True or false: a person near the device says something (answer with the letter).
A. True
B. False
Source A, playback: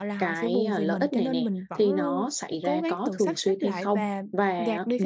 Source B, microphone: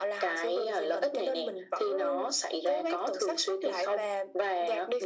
B